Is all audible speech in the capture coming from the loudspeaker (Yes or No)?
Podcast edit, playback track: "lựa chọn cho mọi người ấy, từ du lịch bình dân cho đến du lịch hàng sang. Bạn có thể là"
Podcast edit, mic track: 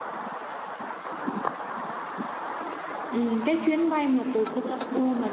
No